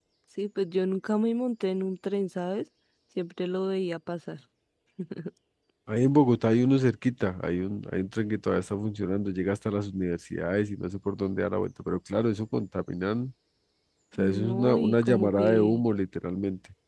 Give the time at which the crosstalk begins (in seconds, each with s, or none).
14.2 s